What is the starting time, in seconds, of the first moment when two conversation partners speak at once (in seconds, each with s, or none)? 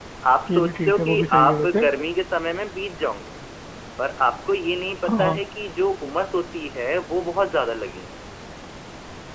0.5 s